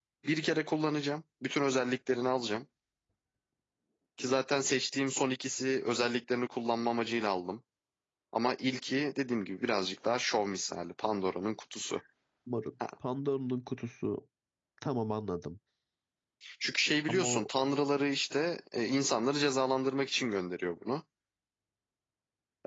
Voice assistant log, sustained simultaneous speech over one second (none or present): none